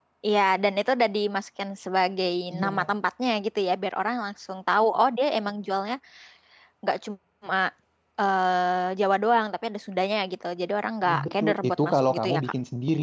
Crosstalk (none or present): present